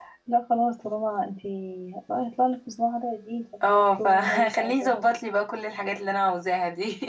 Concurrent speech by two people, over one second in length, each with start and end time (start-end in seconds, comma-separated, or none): 3.6-5.0